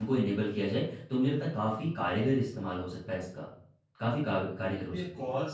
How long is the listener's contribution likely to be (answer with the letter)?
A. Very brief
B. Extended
B